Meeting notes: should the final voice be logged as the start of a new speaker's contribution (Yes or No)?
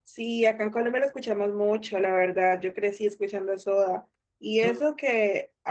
No